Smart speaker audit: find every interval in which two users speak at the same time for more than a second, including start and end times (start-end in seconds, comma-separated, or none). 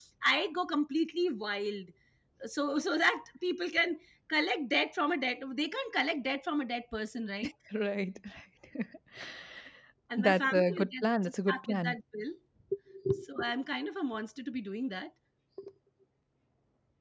10.2-11.9